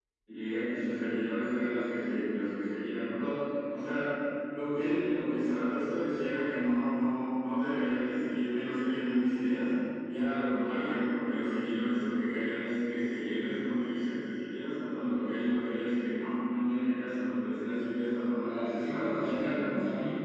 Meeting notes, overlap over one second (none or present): present